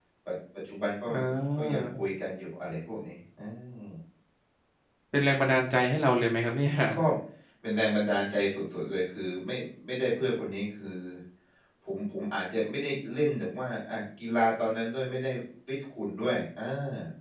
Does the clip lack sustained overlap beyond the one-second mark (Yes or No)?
Yes